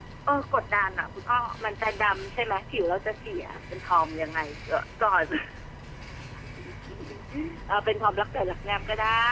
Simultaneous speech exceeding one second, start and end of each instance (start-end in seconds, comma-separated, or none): none